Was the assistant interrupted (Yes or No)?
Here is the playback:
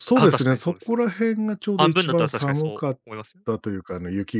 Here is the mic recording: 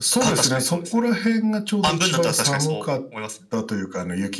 No